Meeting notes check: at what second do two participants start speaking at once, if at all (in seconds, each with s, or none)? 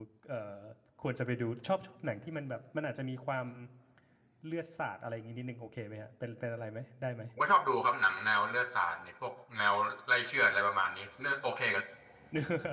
none